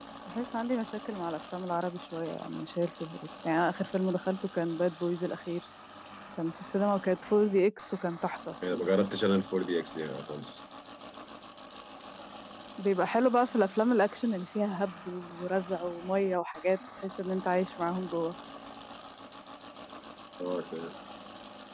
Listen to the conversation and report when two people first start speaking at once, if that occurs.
none

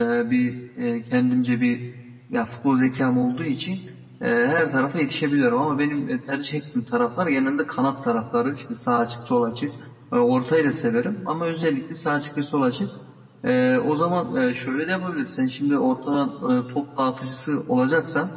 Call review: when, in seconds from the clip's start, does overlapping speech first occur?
none

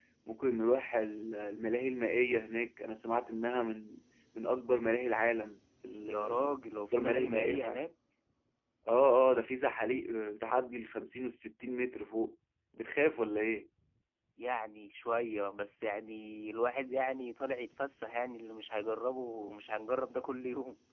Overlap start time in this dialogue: 6 s

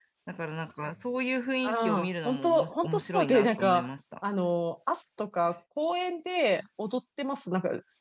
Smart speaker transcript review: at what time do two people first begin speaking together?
2 s

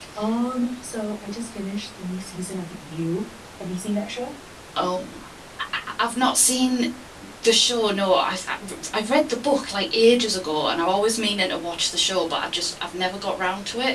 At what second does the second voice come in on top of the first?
none

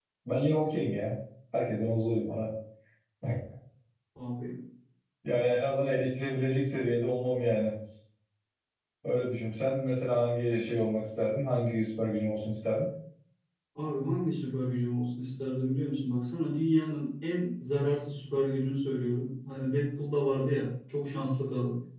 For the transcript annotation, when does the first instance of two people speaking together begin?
none

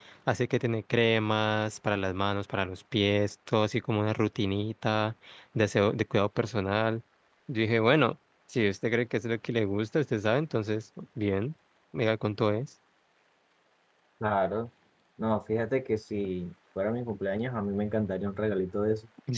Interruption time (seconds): none

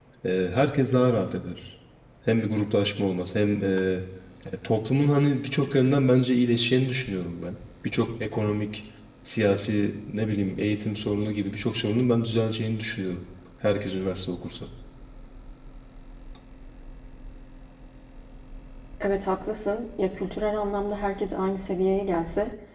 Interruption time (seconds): none

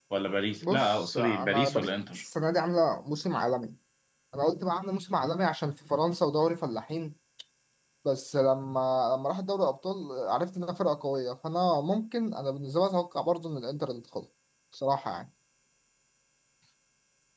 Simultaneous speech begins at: 1 s

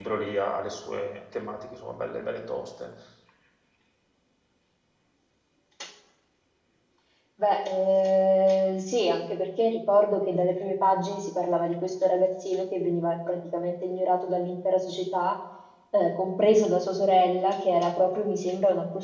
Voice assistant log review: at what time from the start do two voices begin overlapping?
none

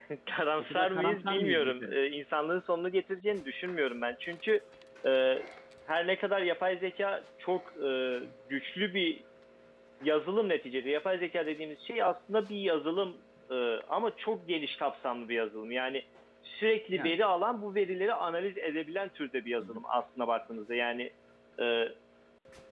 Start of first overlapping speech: 1 s

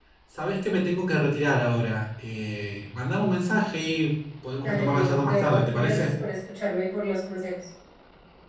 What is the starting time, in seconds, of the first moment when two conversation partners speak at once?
5 s

